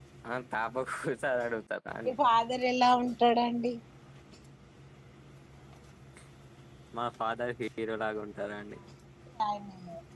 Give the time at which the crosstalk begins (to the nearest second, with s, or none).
none